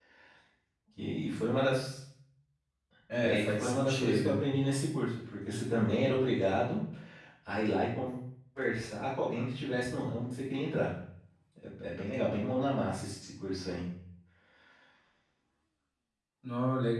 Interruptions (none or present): present